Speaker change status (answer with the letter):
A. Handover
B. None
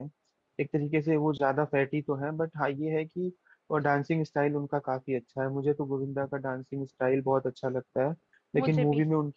B